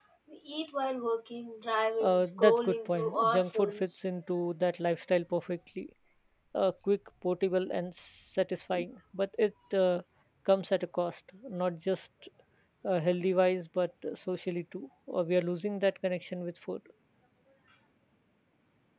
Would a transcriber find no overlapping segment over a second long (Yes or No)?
No